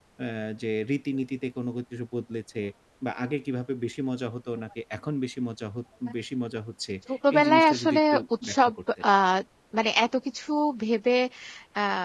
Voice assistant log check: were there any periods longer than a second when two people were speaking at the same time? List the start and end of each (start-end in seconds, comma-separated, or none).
7.3-8.7